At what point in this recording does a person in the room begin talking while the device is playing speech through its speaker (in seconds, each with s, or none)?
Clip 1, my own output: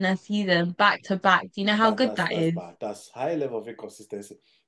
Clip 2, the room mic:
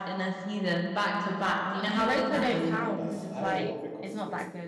1.7 s